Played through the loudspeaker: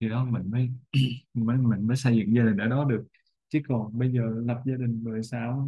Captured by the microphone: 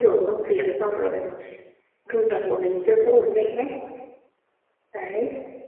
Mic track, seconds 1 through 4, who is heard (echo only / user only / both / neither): user only